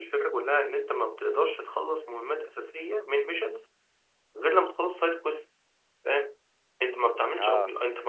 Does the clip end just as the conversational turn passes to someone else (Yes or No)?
No